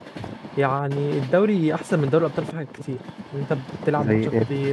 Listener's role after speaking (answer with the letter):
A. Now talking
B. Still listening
B